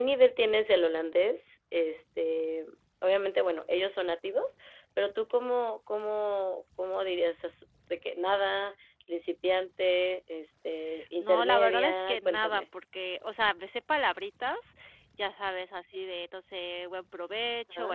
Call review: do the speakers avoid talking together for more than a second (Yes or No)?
No